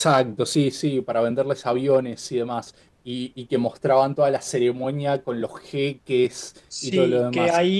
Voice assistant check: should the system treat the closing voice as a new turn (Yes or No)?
Yes